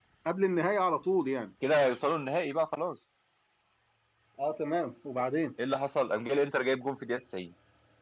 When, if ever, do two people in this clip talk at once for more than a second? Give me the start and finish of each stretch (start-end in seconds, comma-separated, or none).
none